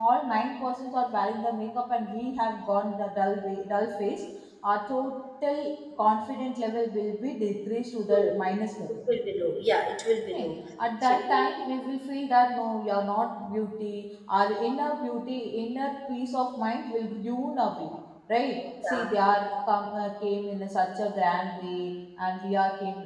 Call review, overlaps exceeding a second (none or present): none